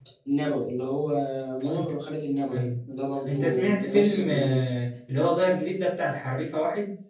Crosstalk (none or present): present